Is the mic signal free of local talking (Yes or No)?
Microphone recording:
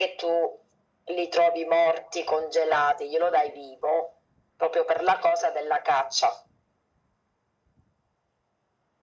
Yes